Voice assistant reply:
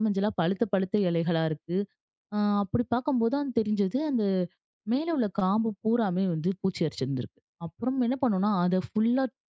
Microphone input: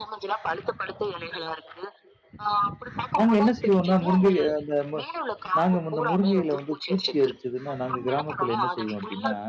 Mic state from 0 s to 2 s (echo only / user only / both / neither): echo only